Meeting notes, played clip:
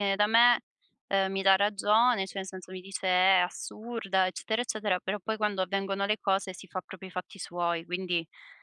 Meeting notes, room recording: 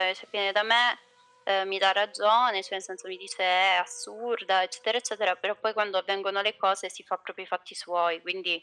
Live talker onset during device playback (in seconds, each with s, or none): none